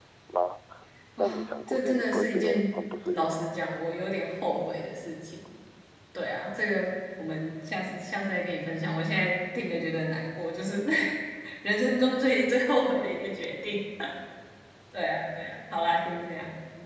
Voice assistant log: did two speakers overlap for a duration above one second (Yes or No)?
Yes